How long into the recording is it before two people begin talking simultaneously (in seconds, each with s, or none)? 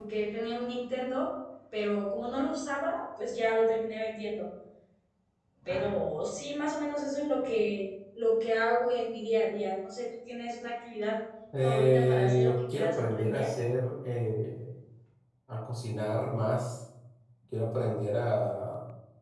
11.5 s